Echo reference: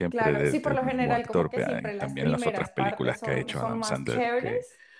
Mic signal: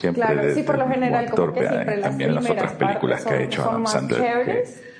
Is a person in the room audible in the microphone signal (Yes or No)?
No